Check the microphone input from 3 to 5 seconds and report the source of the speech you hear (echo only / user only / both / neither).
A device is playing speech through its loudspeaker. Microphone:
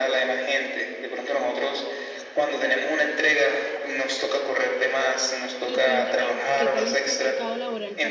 echo only